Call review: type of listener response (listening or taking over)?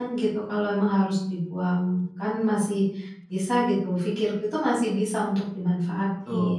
taking over